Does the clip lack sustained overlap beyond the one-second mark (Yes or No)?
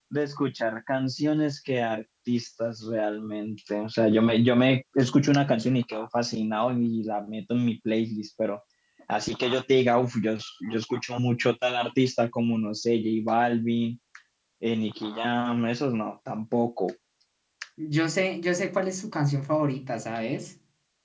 Yes